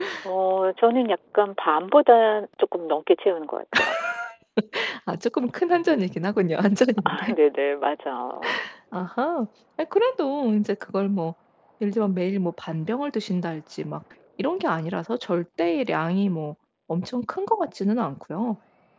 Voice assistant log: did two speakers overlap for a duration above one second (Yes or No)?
No